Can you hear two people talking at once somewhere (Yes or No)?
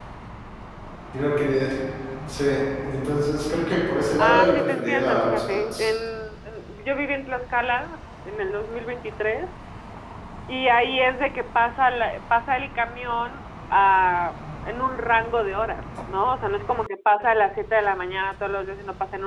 Yes